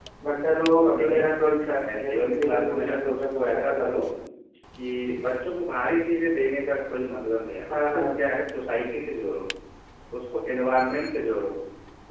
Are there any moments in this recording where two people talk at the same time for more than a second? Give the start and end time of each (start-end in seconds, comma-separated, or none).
1.8-3.9